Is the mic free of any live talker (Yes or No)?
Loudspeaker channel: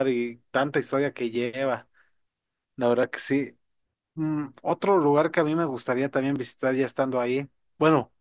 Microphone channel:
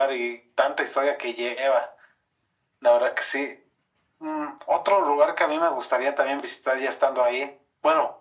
Yes